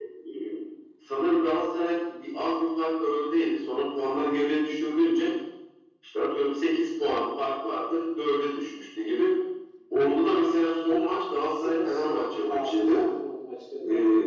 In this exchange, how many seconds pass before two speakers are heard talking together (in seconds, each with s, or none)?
11.5 s